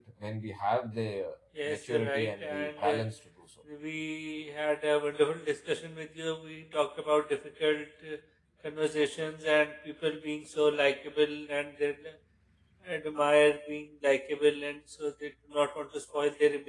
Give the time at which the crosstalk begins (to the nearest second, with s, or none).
2 s